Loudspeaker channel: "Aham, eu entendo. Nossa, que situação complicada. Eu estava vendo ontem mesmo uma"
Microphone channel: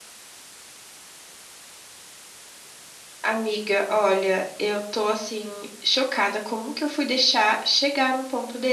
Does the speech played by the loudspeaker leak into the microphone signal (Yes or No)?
No